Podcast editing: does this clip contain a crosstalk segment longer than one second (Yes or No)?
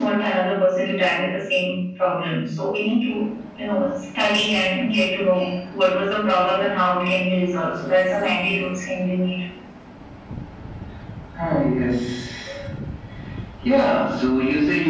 No